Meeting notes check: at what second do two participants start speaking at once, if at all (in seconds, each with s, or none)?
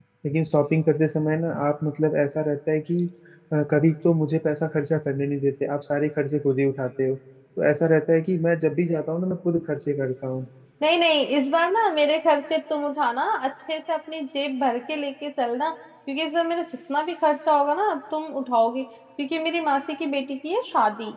none